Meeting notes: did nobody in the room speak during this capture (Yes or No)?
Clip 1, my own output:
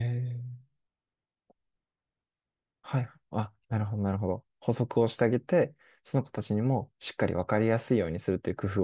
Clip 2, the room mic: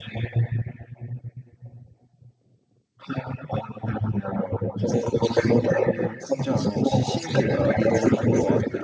No